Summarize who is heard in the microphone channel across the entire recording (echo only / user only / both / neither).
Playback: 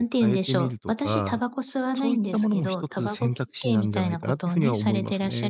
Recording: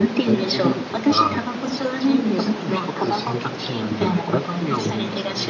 echo only